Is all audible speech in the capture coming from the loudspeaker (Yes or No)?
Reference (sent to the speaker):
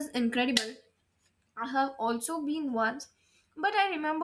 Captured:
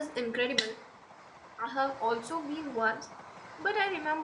Yes